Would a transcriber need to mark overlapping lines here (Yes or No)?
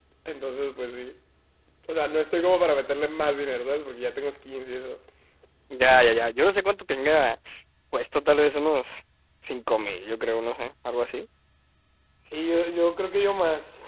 No